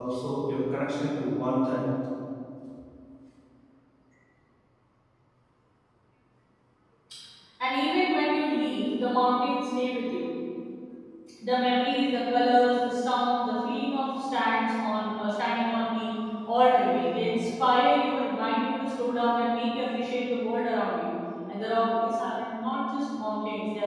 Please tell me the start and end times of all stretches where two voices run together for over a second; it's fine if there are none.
none

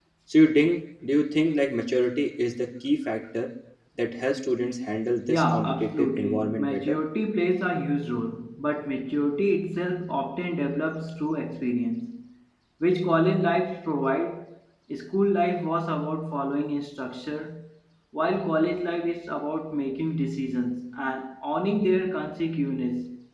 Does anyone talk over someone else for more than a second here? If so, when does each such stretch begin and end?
5.3-7.0

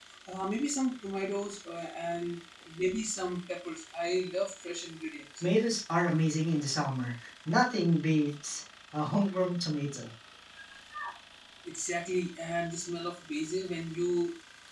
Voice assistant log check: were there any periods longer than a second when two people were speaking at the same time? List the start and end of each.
none

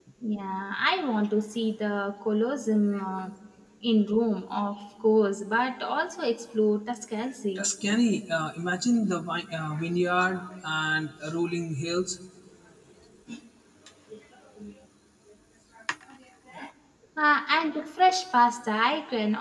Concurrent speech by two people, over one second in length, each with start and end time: none

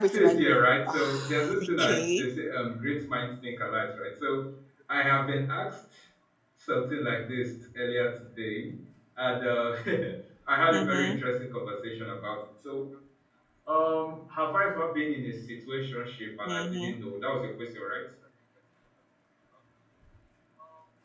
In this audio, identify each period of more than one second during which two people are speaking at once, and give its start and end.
0.9-2.3

